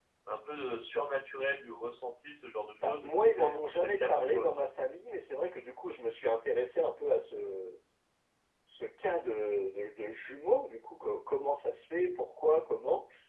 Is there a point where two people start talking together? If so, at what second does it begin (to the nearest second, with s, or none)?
3 s